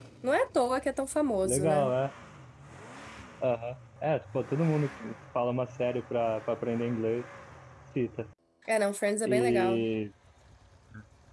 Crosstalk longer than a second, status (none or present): none